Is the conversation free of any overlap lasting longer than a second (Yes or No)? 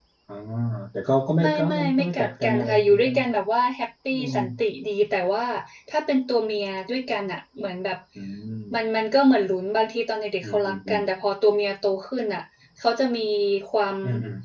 No